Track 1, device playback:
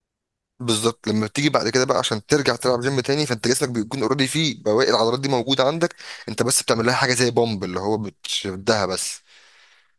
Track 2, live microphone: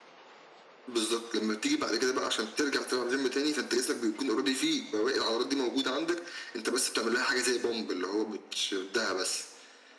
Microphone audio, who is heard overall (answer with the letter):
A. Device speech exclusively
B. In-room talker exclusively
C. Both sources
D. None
A